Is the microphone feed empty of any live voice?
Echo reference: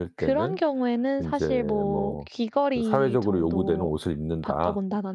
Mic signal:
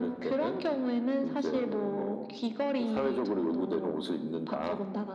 Yes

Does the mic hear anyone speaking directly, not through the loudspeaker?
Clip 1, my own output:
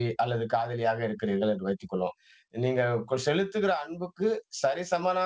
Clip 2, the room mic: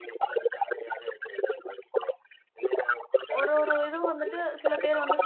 Yes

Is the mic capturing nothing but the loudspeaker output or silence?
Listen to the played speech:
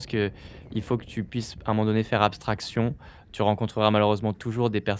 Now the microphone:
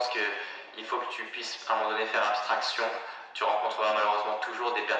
Yes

